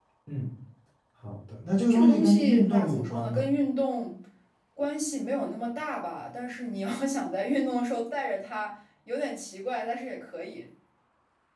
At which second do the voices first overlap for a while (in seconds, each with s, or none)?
1.9 s